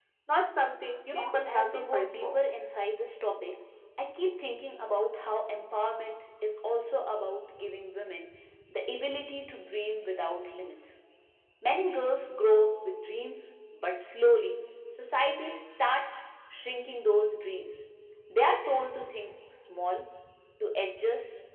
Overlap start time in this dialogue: 1.1 s

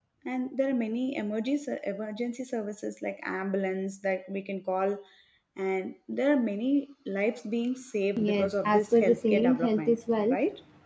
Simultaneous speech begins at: 8.2 s

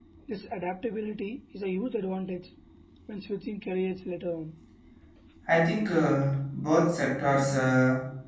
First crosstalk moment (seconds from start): none

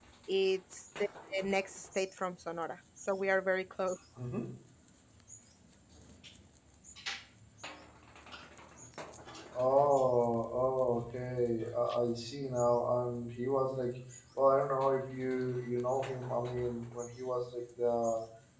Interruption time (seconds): none

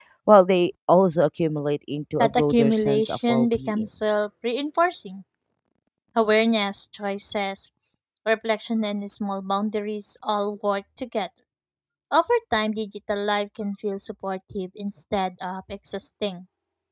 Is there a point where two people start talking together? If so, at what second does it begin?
2.2 s

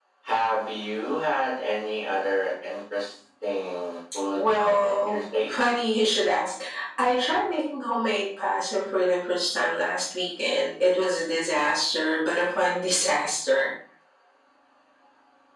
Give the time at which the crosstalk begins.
4.4 s

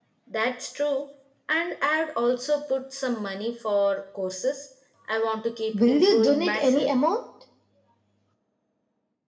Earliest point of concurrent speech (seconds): 5.7 s

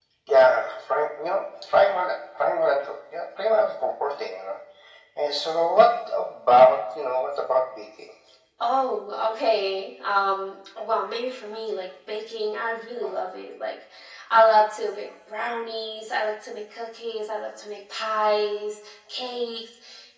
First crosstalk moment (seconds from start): none

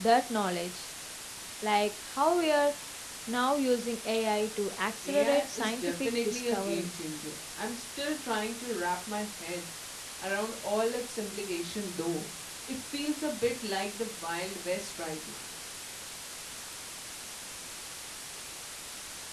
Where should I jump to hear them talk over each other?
5.0 s

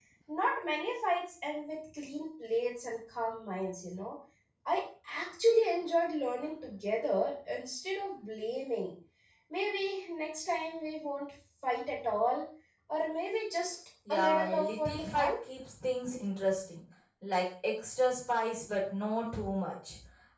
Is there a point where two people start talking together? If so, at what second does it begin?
14.1 s

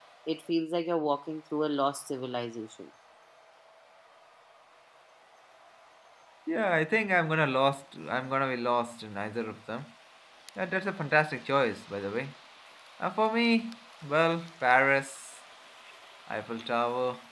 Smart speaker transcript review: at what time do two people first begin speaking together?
none

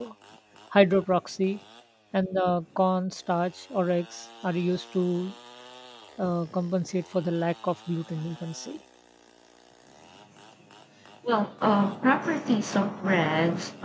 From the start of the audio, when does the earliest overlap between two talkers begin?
none

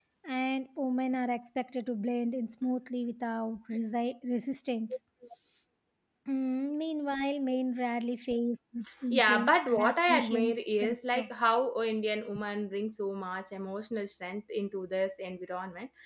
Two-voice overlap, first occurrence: 9.1 s

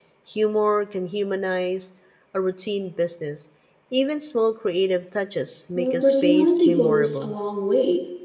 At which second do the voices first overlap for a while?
5.8 s

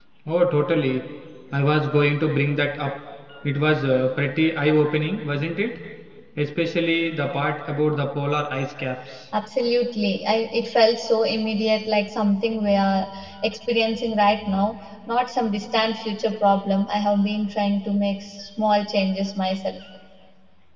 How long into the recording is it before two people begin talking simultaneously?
none

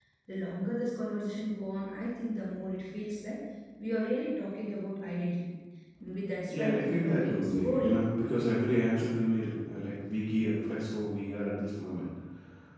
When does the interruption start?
6.5 s

